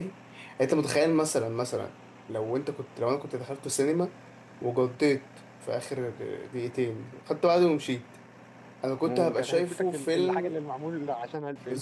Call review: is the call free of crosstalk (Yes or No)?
No